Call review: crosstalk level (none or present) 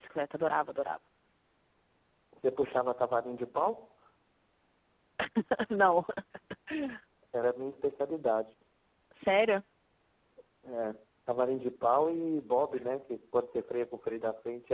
none